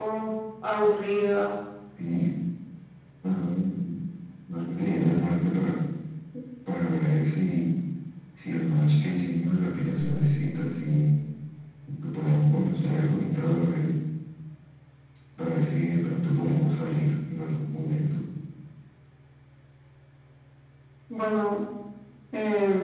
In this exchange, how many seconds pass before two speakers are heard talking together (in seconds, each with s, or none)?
none